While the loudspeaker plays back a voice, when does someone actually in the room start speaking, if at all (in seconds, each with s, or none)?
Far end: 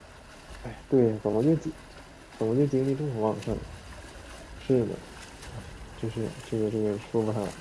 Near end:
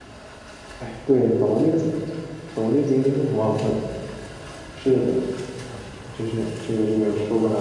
none